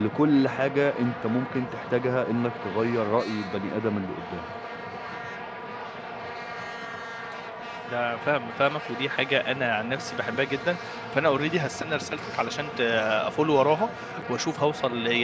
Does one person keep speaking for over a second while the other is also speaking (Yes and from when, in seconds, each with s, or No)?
No